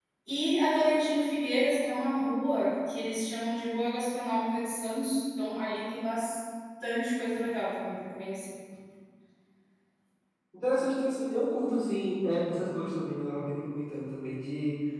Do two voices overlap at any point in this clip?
No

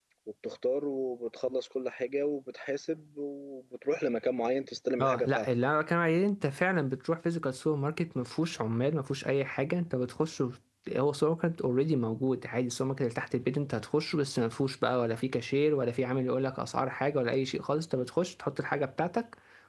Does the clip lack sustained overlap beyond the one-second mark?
Yes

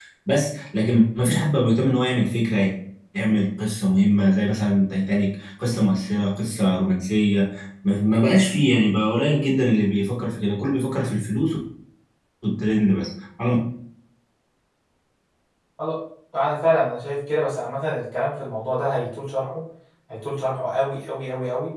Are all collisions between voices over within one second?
Yes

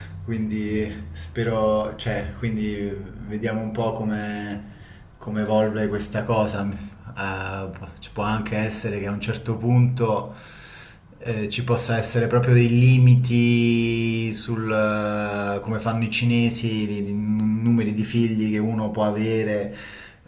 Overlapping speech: No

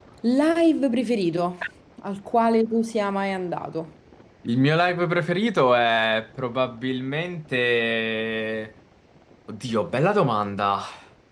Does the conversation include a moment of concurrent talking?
No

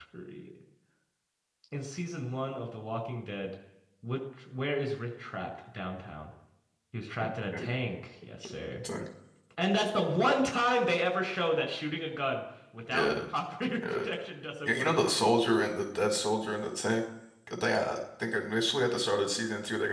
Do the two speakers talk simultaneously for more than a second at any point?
No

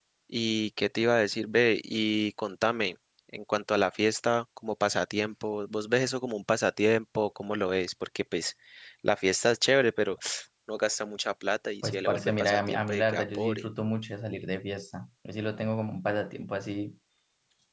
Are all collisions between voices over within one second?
No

